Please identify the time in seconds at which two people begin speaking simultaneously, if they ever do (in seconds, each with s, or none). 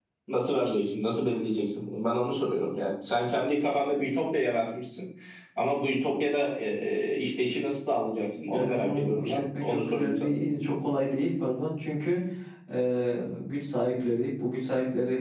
8.3 s